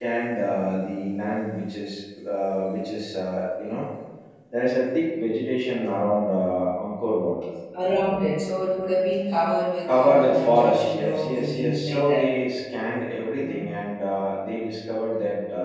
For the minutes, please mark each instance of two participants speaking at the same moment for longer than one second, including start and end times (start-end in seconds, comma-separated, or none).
9.9-12.2